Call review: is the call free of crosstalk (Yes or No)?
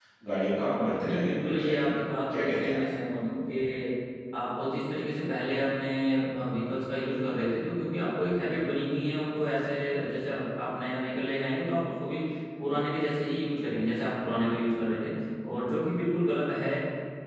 No